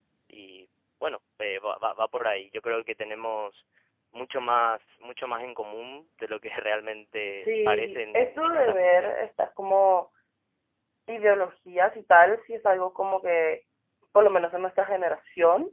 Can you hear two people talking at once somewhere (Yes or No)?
Yes